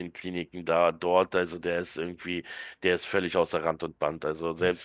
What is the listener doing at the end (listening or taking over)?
listening